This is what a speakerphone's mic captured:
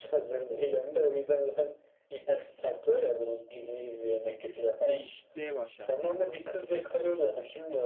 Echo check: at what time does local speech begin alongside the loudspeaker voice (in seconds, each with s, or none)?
4.8 s